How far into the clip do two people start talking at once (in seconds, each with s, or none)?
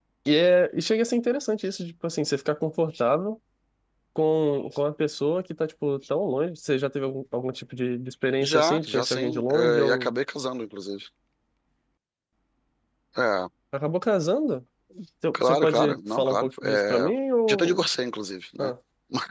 8.4 s